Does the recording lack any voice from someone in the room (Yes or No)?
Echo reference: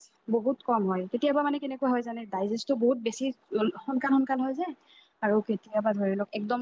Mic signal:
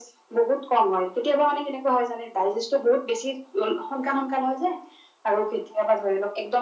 Yes